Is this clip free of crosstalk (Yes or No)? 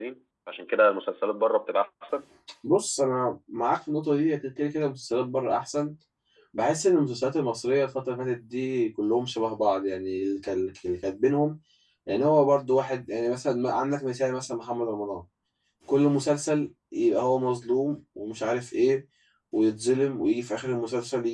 Yes